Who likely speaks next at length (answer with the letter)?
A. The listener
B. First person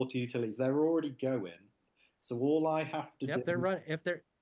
A